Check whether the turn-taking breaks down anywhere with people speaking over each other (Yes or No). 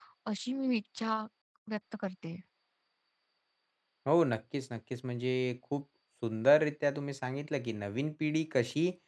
No